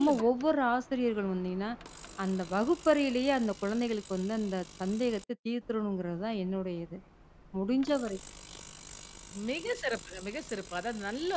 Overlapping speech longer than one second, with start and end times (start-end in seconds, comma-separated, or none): none